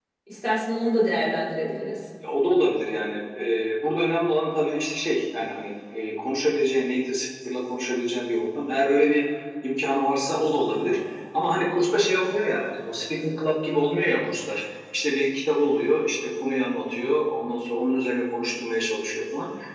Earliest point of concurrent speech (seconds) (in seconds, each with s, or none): none